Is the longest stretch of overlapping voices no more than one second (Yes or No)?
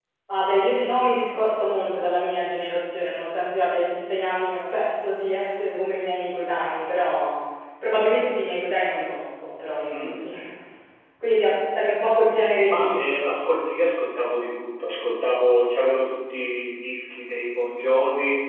Yes